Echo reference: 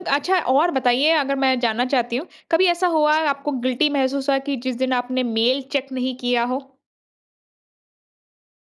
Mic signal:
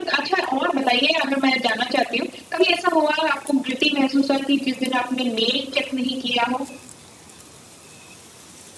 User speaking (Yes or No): No